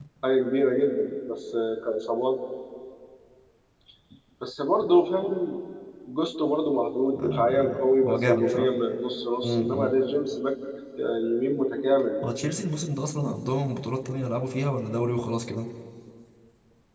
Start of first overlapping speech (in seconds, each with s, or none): 7.2 s